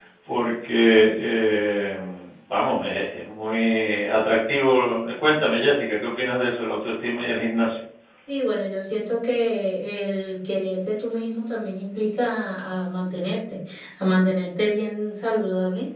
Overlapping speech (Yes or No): No